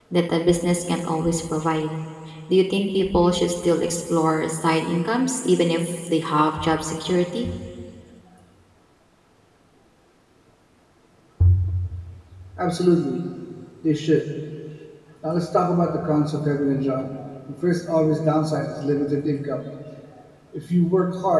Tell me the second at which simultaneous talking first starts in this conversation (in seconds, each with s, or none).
none